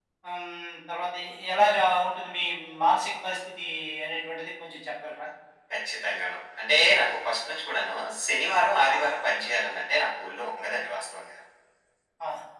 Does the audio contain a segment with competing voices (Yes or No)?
No